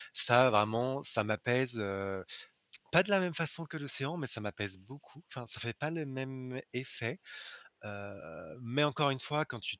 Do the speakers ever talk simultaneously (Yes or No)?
No